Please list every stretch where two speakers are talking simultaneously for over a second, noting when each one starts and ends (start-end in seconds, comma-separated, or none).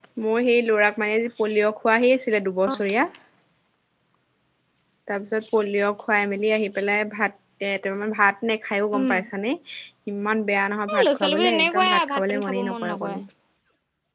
10.9-13.2